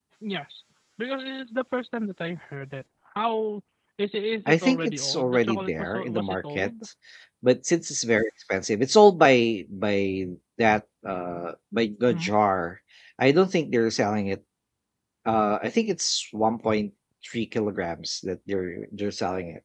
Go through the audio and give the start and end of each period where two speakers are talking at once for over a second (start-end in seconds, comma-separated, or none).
4.5-6.7